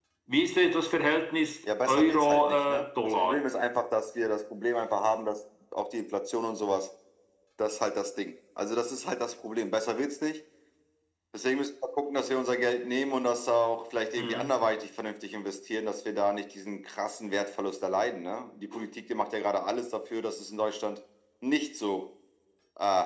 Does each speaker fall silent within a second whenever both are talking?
No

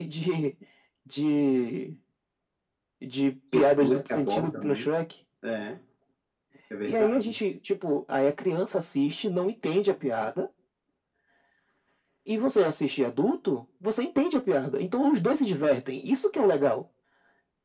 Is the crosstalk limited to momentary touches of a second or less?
No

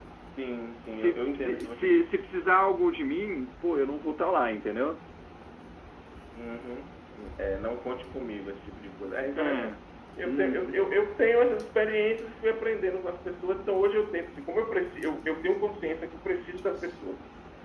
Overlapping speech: Yes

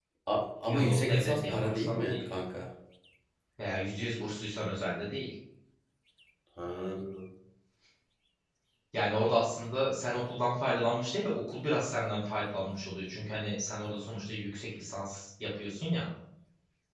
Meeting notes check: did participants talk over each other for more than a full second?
Yes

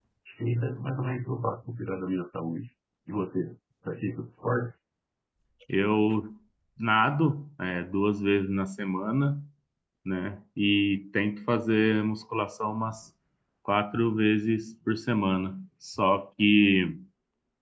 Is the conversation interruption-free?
Yes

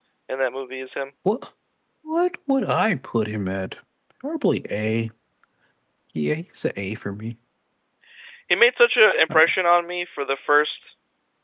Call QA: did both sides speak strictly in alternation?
Yes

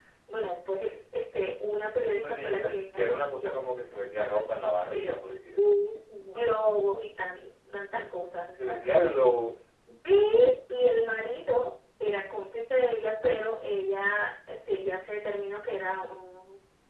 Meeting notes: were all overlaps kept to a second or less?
No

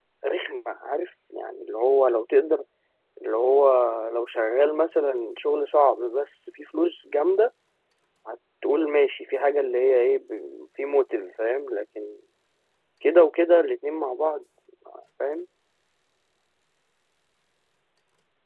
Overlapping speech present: No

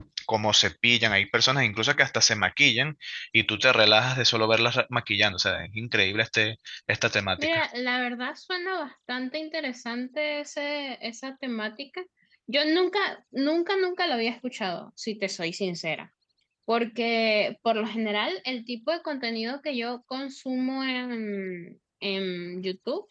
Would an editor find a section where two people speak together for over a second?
No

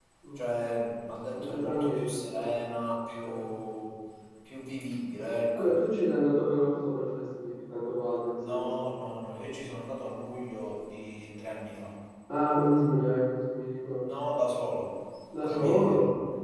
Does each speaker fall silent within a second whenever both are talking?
No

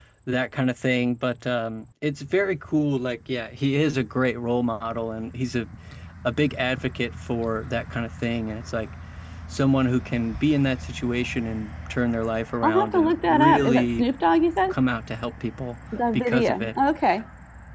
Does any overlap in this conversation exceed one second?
Yes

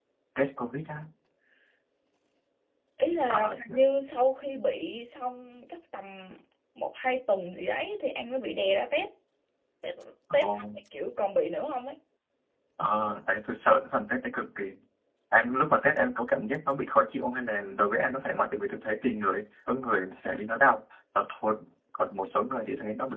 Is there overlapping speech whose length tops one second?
No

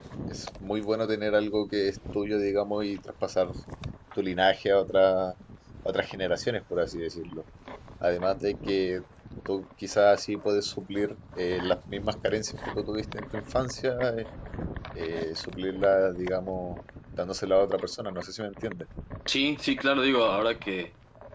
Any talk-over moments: No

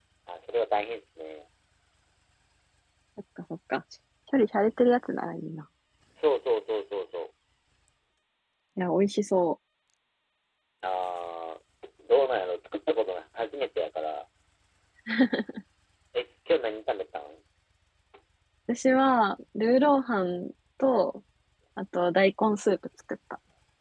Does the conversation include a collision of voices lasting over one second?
No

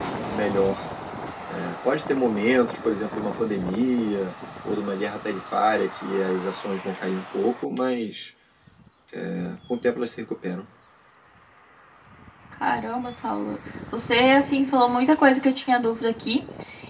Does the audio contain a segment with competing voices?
No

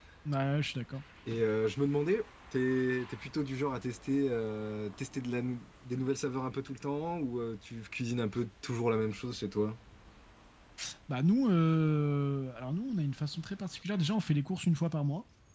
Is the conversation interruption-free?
Yes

